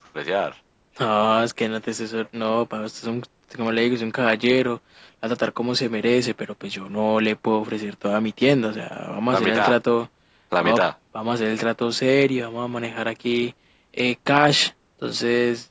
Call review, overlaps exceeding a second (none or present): none